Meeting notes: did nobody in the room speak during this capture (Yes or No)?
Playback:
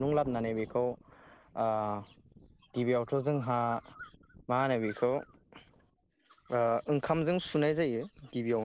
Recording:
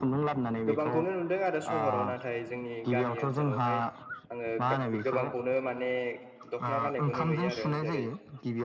No